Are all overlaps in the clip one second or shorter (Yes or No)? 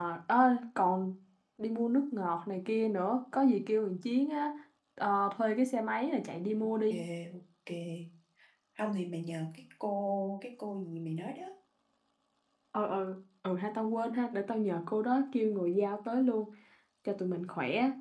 Yes